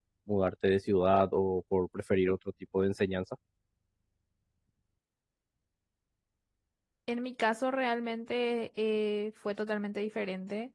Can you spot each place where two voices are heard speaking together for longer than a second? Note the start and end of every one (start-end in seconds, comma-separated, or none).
none